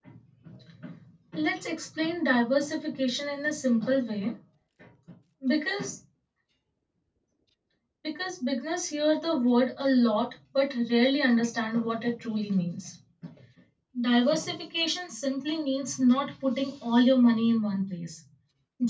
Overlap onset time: none

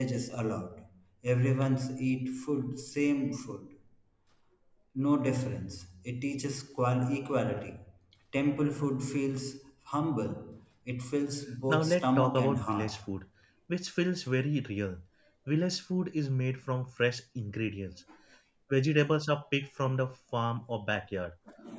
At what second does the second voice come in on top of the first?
11.7 s

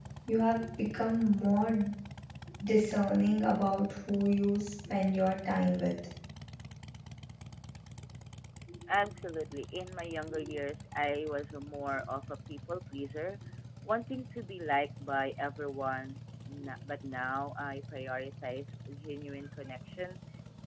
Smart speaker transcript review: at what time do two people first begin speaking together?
none

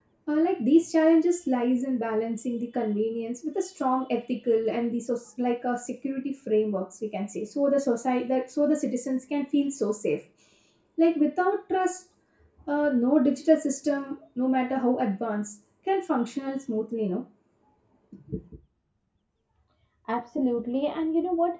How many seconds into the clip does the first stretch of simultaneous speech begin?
none

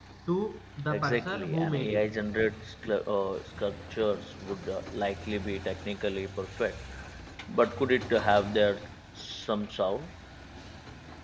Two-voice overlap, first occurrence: 0.9 s

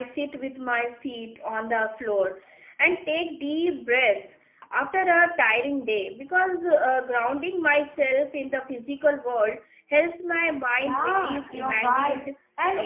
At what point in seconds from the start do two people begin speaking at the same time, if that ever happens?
10.8 s

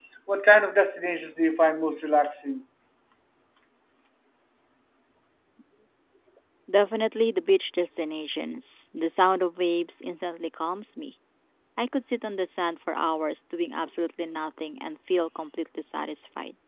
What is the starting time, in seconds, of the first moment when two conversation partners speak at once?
none

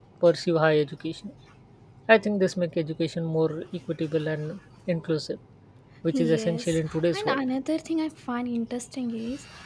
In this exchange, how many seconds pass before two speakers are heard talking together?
6.1 s

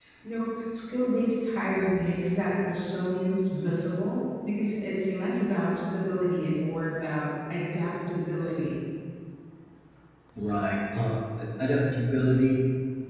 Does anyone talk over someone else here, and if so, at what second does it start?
none

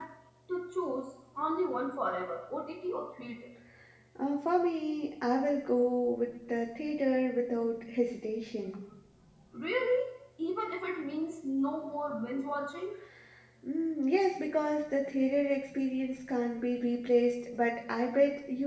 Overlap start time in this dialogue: none

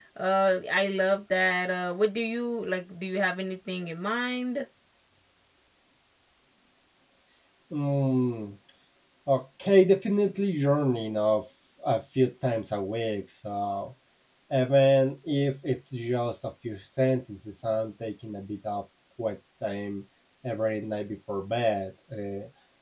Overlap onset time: none

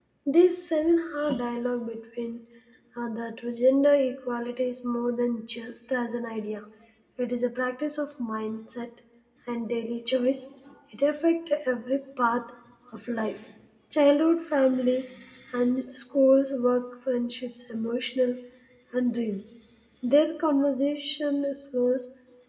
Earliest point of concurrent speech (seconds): none

